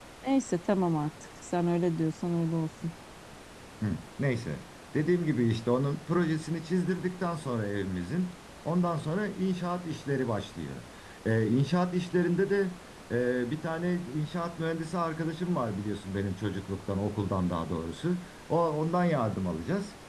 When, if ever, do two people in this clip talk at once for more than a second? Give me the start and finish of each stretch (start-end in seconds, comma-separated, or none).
none